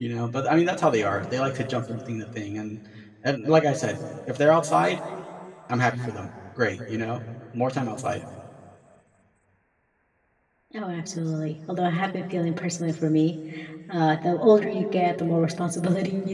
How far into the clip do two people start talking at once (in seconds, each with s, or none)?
none